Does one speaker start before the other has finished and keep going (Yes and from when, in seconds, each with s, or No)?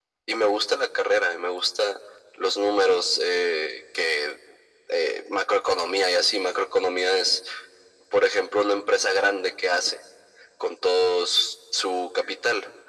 No